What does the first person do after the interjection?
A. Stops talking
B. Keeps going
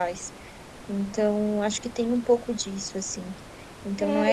A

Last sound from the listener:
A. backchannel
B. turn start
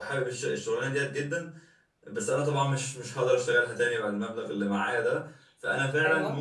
A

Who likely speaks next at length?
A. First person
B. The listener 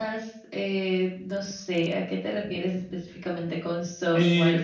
B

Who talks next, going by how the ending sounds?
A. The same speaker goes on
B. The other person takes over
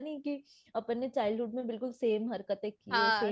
B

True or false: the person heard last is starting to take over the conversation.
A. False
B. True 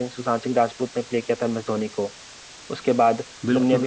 B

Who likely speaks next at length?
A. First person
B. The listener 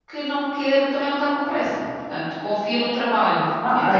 B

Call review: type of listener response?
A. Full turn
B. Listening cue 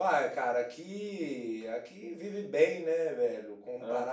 B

